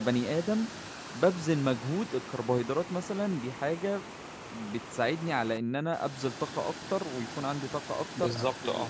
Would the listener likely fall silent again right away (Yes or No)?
Yes